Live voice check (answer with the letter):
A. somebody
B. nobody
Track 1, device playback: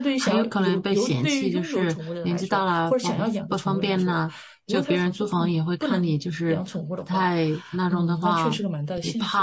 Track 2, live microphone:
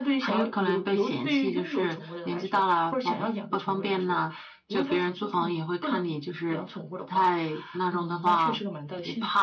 B